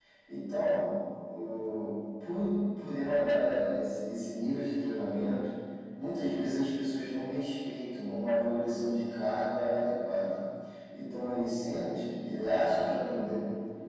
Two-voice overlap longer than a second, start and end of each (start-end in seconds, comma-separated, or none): none